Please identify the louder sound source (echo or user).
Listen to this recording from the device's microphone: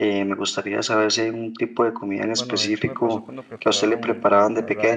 echo